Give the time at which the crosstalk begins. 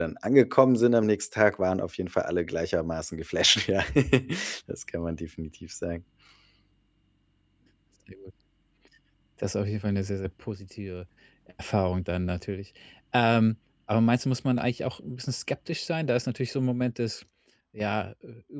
none

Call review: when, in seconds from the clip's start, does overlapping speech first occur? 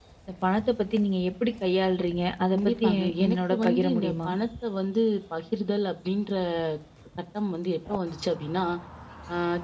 2.5 s

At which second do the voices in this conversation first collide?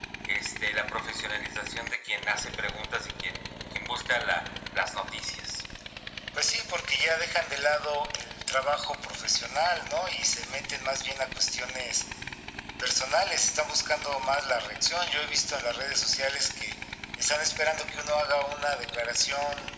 none

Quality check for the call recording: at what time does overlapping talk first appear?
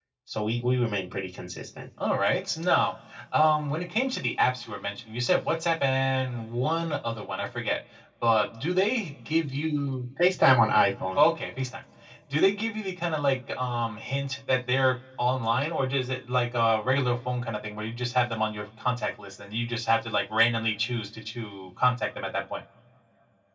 none

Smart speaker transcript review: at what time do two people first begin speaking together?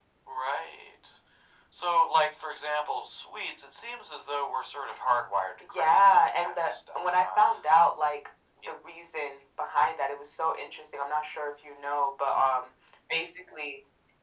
5.6 s

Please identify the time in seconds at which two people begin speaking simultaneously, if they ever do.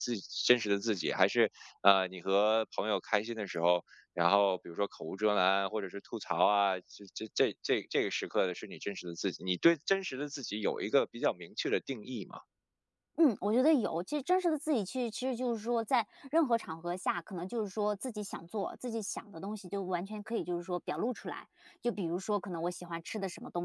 none

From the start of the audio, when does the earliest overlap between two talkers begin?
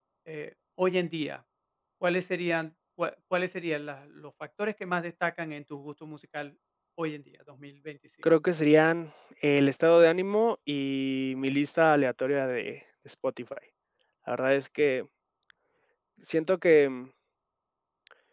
none

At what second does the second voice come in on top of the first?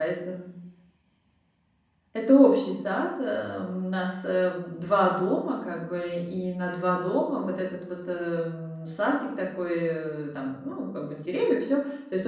none

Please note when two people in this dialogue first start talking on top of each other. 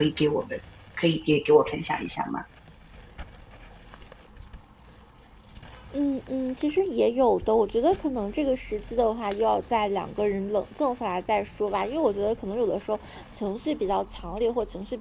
none

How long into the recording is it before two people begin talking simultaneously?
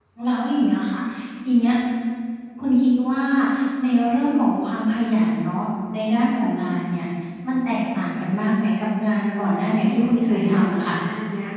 9.8 s

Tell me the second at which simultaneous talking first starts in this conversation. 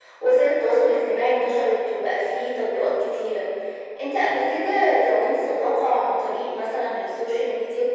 none

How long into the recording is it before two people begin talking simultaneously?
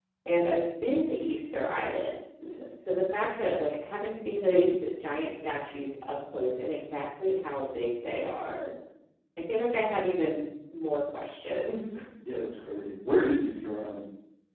none

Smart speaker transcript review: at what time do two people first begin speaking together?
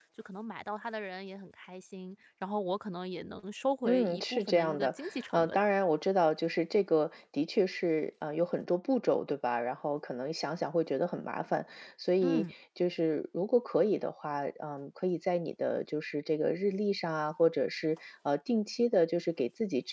3.9 s

